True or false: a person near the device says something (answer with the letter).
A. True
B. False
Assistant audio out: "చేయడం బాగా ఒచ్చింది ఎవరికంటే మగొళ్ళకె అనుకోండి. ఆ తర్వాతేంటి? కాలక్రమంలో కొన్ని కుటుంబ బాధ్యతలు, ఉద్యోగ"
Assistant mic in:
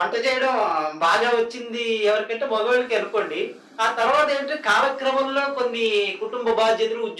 B